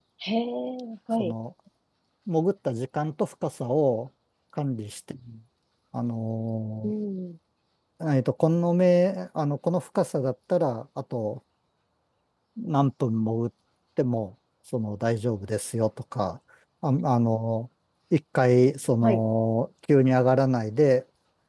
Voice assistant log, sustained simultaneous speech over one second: none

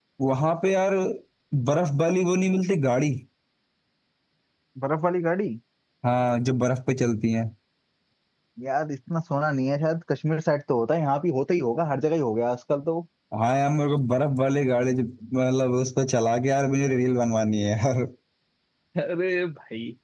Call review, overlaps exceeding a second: none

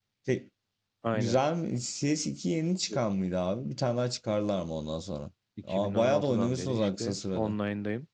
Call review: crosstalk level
present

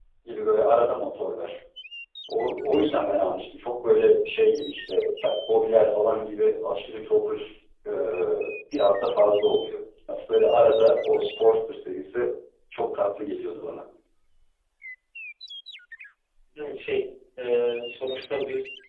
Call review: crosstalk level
none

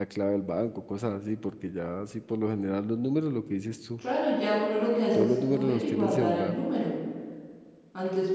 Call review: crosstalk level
present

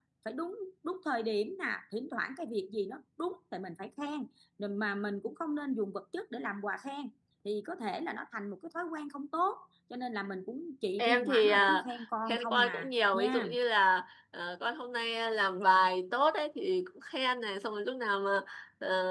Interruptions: present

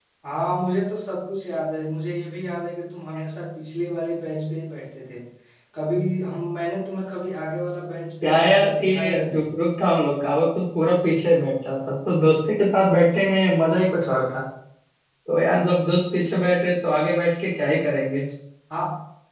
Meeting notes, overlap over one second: present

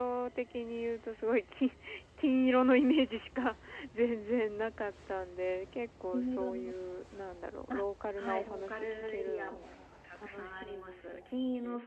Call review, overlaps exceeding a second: present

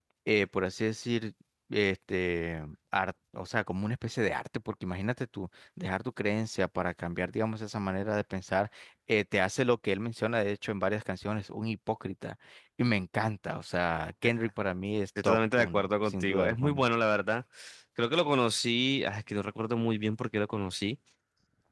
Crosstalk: present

